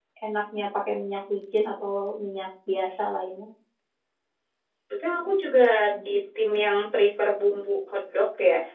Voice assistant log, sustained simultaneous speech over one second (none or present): none